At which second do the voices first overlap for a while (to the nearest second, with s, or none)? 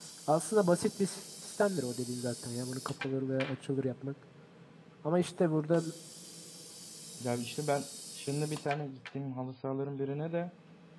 none